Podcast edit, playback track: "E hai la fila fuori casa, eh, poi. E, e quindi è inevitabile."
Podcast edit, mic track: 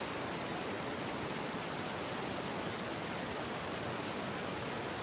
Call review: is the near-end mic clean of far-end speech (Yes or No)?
Yes